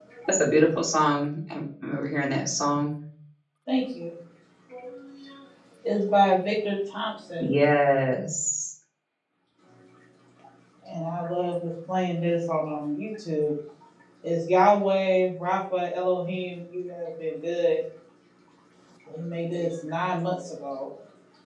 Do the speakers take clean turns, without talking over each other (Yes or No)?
Yes